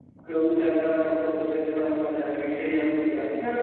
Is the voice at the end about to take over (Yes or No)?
Yes